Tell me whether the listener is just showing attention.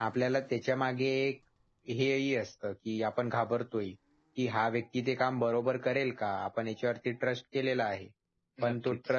Yes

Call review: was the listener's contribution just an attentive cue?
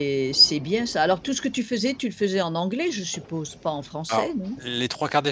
No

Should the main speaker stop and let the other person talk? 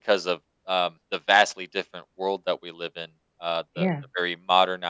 No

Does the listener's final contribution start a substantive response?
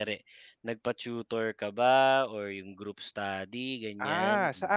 Yes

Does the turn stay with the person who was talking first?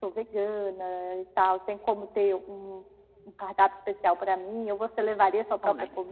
No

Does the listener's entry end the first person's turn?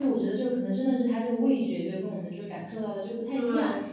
No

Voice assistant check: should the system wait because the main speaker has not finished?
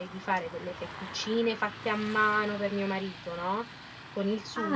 No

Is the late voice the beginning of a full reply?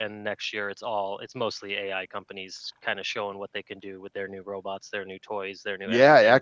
Yes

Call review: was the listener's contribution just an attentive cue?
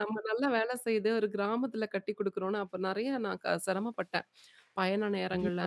Yes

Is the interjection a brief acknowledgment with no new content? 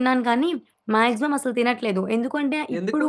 Yes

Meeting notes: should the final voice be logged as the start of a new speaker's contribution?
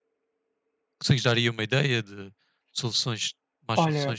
Yes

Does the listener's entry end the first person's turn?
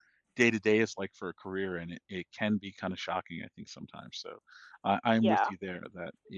No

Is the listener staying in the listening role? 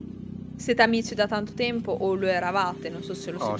No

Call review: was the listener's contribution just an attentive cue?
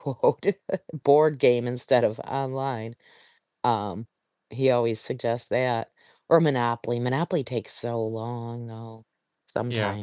No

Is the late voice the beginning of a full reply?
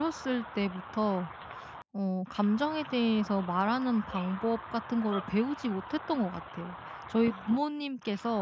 No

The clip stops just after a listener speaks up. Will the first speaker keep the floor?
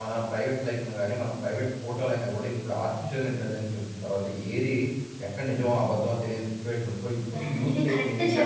No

